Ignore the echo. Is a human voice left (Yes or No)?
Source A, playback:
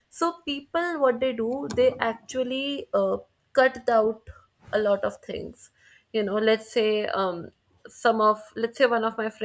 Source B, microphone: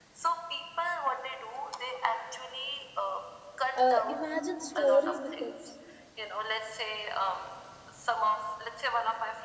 Yes